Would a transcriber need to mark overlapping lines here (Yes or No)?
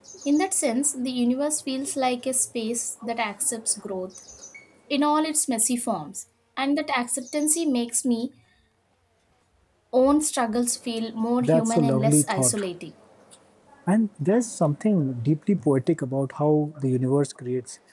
Yes